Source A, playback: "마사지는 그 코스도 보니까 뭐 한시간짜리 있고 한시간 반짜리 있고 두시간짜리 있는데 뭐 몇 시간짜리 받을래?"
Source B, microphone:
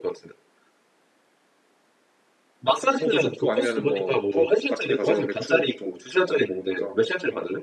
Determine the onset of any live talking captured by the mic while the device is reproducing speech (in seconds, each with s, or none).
3.0 s